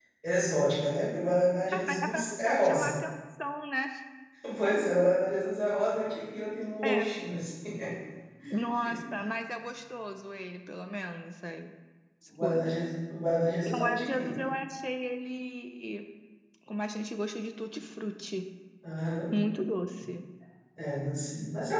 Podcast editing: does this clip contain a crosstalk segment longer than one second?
Yes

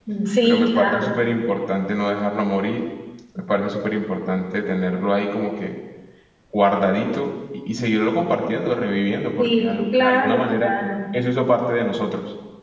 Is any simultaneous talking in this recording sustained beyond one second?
Yes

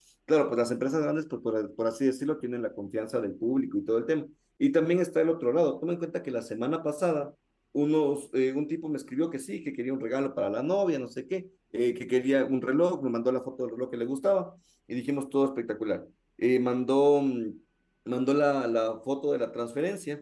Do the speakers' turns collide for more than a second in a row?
No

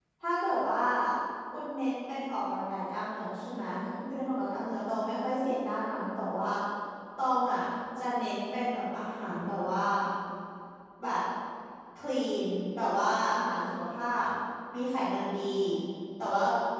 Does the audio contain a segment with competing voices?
No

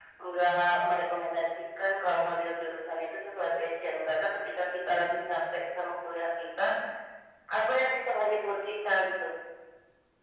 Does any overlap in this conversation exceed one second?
No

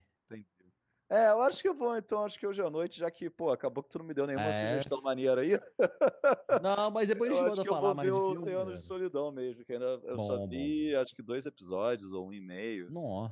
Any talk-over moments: Yes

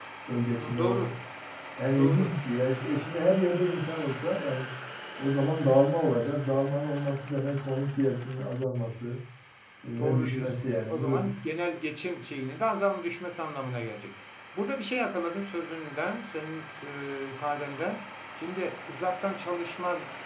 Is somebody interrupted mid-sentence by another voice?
Yes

